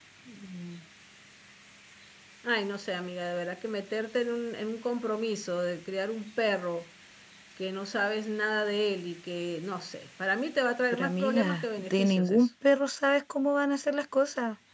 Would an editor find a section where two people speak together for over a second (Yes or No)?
Yes